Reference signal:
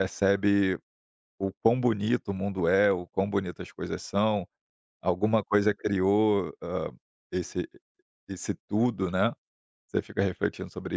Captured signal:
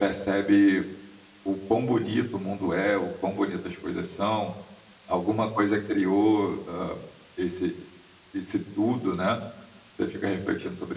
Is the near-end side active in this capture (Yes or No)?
No